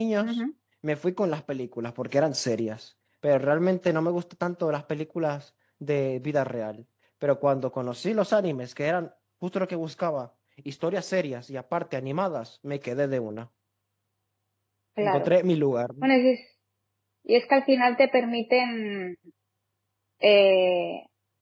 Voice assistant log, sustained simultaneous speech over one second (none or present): none